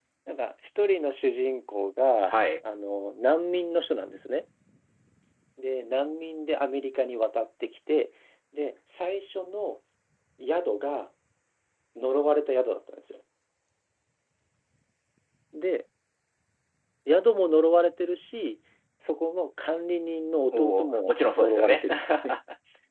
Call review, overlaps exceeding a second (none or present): present